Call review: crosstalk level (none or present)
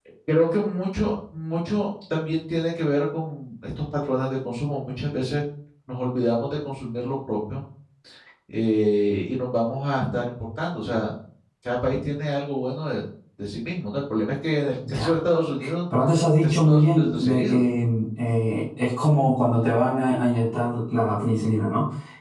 present